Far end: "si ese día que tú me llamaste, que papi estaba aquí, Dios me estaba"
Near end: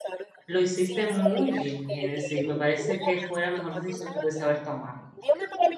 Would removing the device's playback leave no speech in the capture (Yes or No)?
No